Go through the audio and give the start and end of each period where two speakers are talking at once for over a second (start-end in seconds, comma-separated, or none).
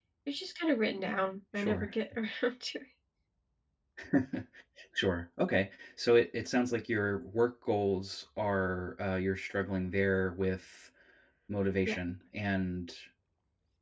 none